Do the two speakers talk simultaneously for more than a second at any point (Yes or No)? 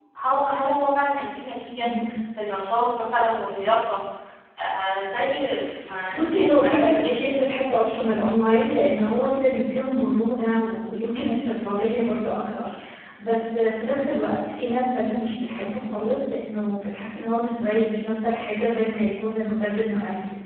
Yes